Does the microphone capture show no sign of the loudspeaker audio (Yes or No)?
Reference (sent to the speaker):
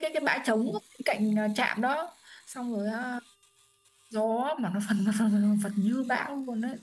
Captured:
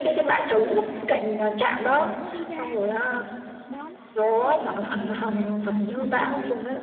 No